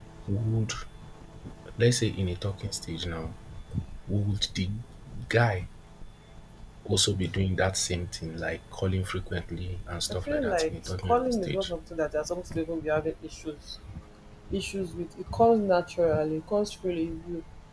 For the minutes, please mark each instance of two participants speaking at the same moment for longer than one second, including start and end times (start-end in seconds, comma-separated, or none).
10.1-11.7